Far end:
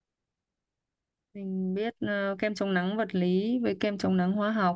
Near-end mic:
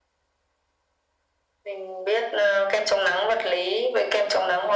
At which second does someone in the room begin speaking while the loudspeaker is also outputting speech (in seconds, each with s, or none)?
none